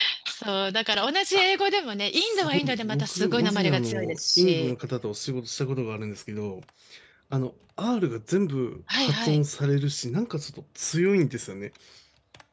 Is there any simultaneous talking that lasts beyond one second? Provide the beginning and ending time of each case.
2.1-4.7

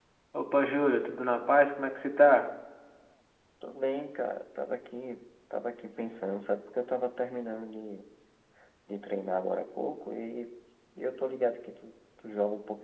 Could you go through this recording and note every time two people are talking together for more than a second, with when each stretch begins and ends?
none

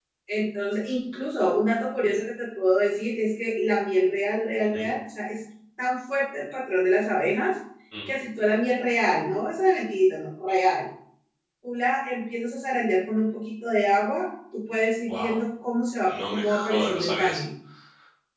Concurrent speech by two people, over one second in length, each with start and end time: 16.1-17.4

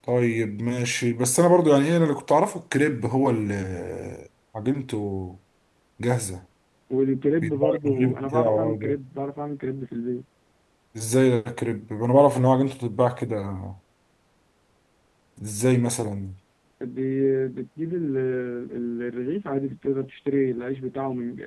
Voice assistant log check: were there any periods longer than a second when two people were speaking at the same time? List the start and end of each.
7.4-8.9

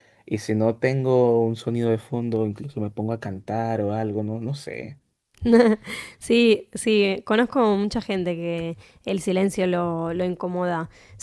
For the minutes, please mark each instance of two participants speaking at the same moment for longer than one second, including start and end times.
none

